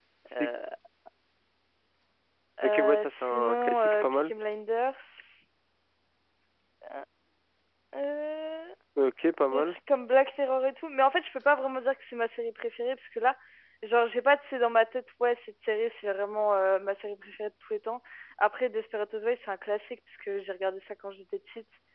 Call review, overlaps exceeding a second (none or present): present